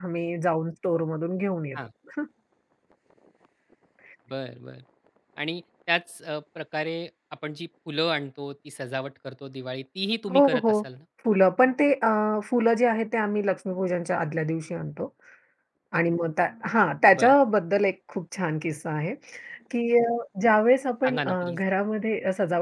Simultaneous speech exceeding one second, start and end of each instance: none

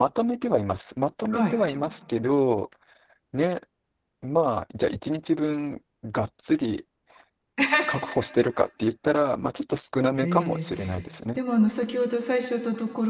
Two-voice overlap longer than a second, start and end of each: none

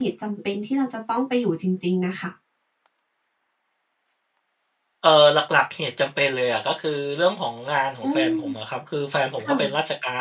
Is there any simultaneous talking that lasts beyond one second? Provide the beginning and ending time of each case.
none

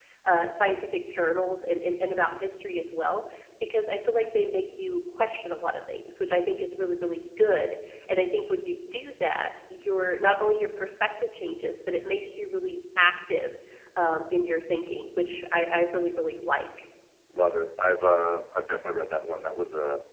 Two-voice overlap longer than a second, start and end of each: none

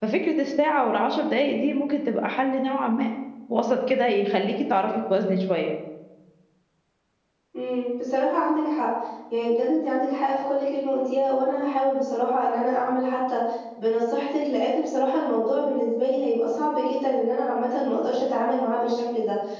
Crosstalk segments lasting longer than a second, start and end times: none

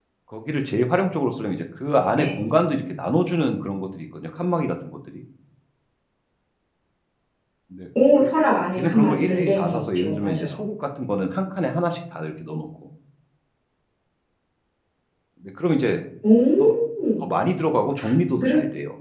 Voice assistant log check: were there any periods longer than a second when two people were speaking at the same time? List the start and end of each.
8.8-10.6

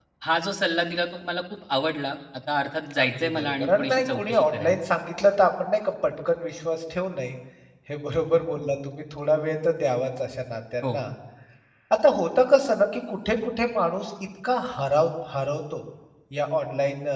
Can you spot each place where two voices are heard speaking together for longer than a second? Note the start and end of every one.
3.0-4.7

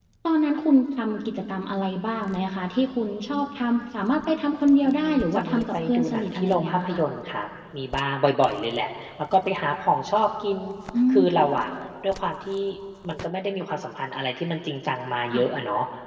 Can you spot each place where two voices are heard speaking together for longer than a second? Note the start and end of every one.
4.8-7.0

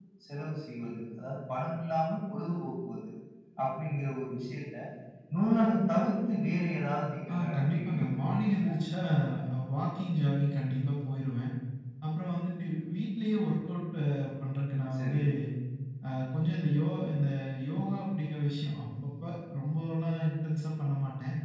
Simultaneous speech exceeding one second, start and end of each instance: 7.3-8.7

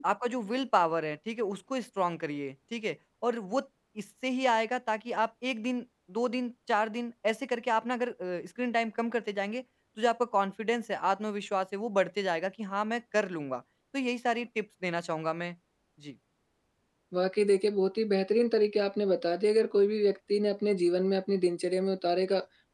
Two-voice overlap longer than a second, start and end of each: none

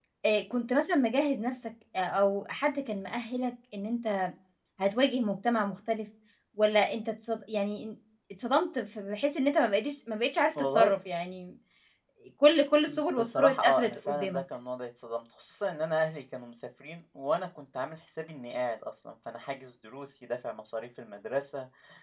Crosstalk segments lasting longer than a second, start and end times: 12.9-14.4

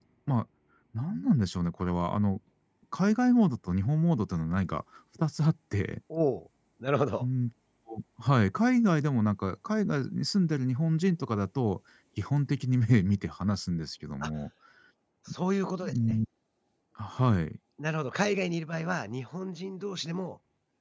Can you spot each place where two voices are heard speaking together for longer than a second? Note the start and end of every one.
none

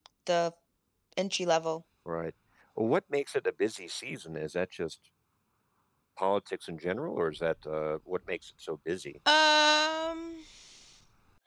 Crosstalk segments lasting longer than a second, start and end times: none

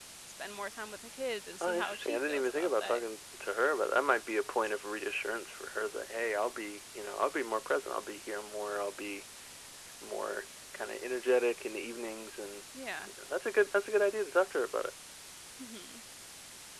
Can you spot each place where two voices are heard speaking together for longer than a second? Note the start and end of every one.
1.6-3.0

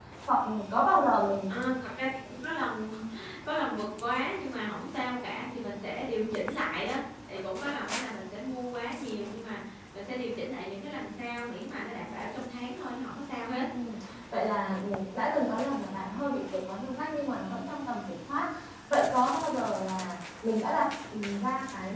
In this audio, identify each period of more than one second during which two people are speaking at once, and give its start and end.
none

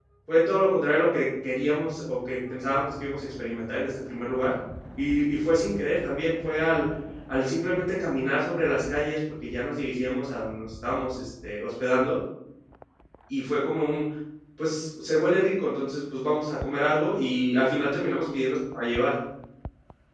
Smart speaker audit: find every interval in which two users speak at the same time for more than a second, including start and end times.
none

